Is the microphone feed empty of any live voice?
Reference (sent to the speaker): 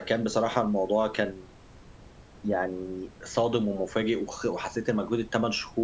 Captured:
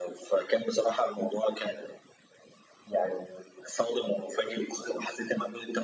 Yes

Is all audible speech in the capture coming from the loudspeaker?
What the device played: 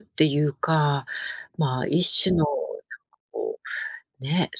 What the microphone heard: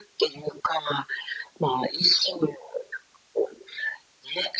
Yes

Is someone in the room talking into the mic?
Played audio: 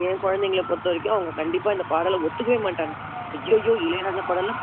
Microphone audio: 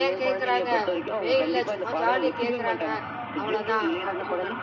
Yes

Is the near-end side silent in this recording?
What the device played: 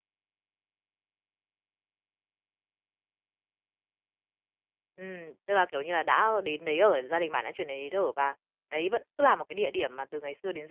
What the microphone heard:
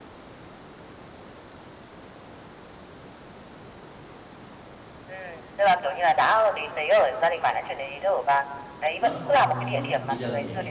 No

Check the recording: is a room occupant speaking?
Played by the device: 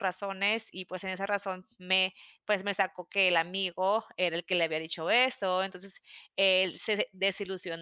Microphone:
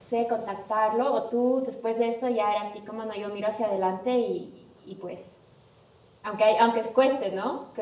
Yes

